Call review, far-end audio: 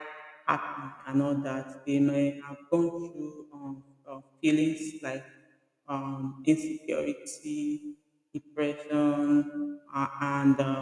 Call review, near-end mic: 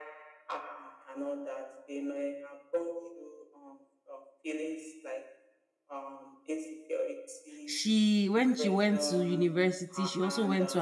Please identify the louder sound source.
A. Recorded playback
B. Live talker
B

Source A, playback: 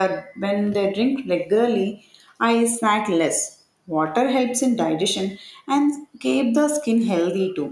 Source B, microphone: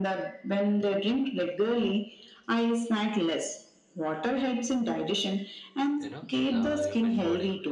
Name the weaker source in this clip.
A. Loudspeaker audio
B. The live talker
B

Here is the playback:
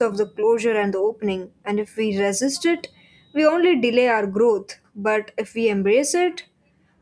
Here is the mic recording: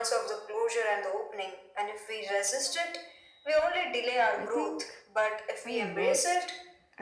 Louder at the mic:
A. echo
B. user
A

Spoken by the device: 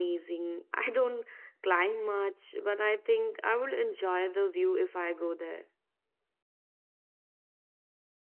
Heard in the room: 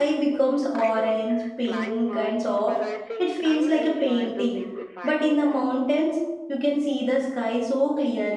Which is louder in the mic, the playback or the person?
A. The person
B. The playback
A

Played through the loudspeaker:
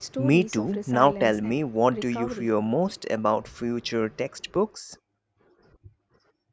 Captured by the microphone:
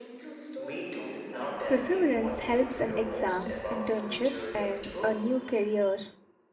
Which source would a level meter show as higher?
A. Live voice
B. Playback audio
A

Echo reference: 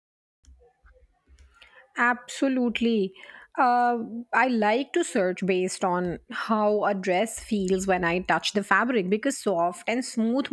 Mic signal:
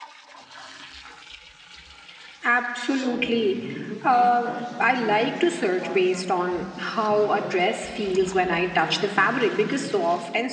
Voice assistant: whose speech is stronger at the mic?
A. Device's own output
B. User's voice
A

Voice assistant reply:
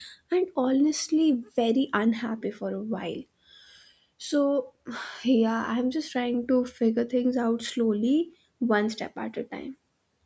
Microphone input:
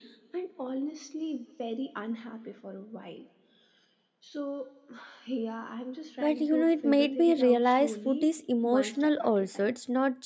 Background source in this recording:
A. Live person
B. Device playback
B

